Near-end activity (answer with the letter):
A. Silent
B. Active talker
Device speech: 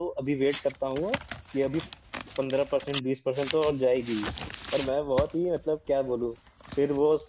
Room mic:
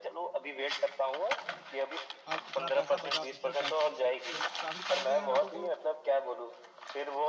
B